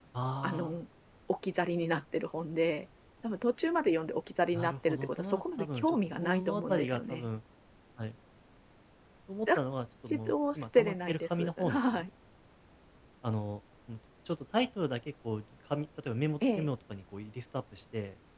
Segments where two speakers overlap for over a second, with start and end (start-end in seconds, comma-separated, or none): 4.5-7.3, 10.1-12.1